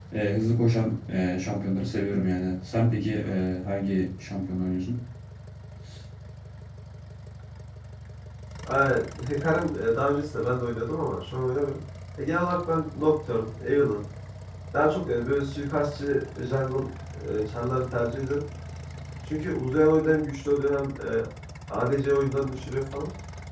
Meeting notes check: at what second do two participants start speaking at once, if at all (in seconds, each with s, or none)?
none